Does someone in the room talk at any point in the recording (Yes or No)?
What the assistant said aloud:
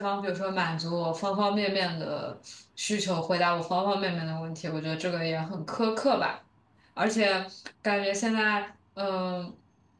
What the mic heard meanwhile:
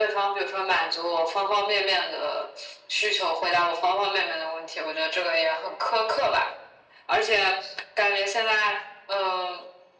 No